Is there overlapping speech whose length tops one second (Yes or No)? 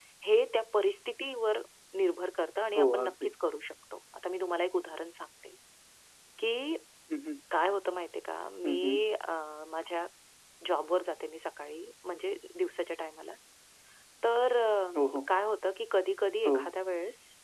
No